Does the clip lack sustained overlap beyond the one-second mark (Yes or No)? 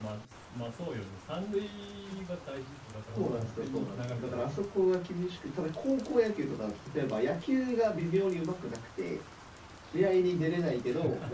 No